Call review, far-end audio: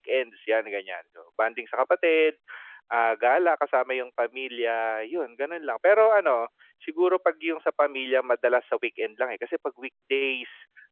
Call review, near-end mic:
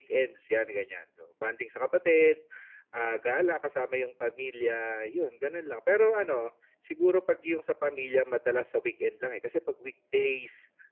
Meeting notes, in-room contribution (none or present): none